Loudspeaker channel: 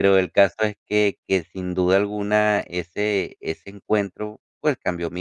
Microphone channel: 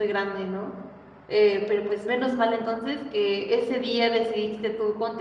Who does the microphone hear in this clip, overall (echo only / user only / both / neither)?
user only